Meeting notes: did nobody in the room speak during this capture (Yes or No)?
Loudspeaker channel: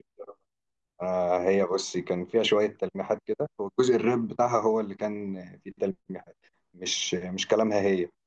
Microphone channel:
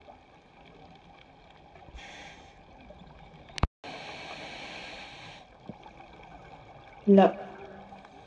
No